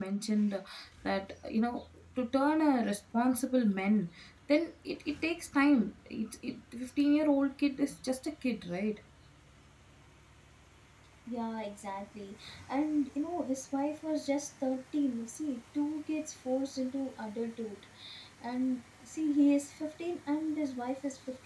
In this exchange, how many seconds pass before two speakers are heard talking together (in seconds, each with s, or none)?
none